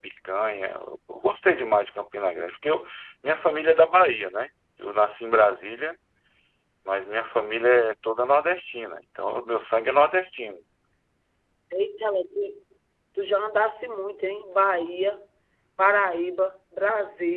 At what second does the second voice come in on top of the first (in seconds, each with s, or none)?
none